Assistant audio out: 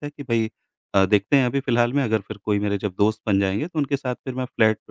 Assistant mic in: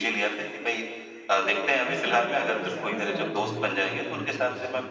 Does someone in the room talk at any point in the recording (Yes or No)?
Yes